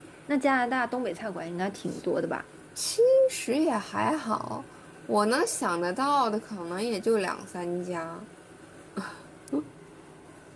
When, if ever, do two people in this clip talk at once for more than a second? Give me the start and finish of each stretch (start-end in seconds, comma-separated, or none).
none